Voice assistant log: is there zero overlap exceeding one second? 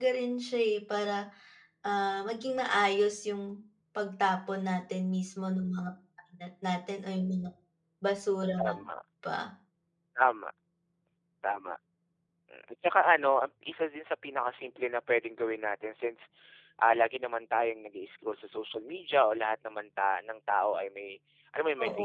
Yes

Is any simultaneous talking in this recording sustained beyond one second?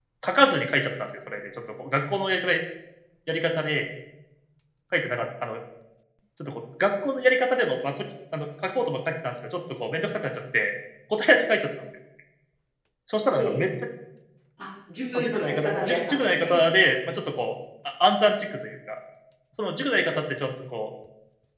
Yes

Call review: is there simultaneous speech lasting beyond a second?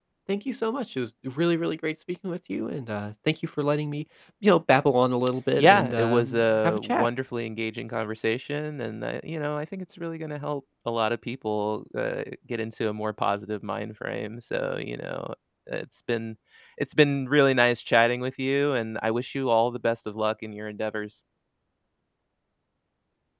Yes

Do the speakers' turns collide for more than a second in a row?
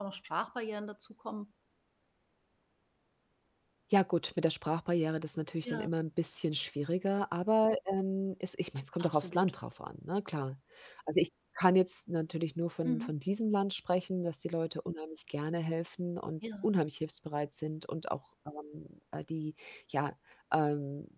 No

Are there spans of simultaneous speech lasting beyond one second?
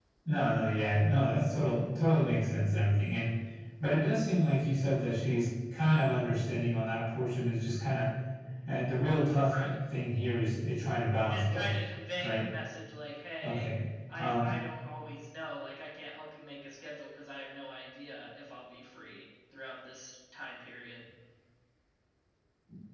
No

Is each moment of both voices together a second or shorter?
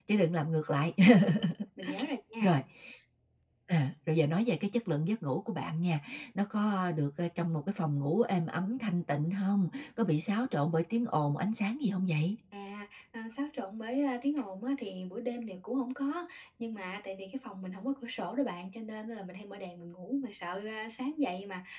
Yes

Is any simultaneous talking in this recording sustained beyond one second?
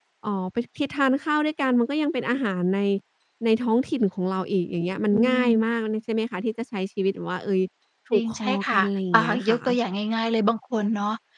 Yes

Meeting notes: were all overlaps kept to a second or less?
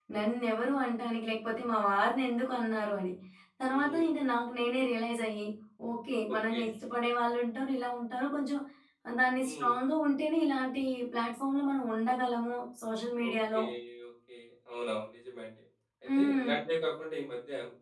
Yes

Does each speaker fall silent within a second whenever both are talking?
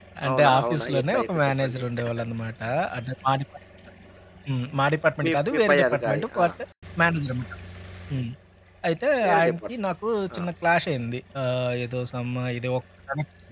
No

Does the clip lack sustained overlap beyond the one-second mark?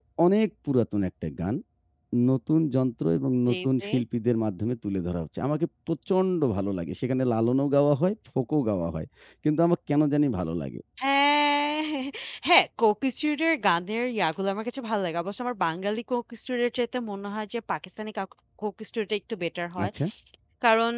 Yes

